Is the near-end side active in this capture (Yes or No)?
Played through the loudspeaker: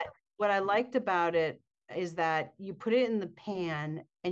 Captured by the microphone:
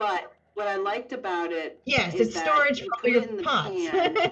Yes